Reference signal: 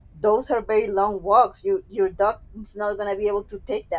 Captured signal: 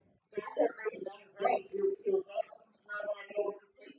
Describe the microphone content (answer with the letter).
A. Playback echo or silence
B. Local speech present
A